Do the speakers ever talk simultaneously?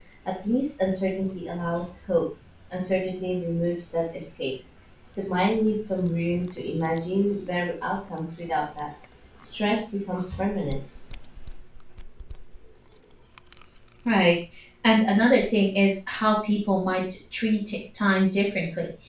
No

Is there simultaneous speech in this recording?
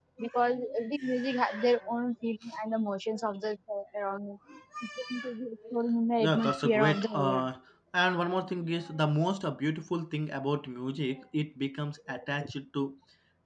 Yes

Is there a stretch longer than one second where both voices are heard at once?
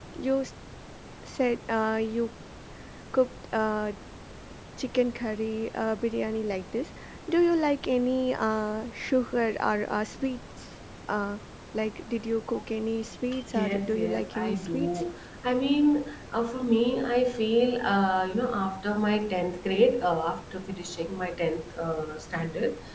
Yes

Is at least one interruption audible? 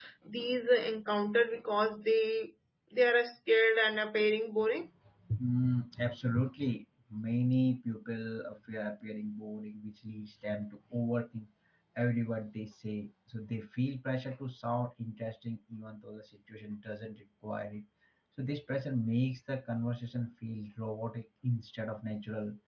No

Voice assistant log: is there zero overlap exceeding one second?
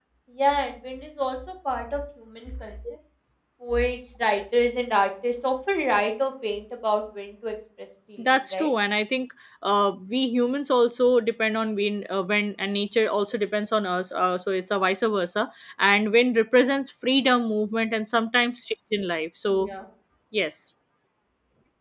Yes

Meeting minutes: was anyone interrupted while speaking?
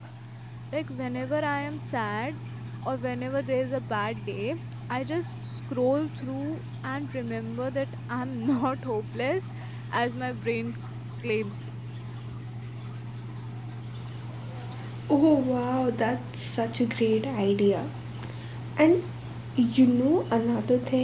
No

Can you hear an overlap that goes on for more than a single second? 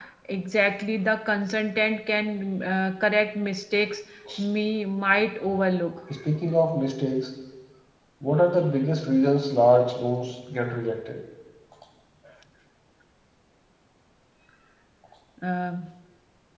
No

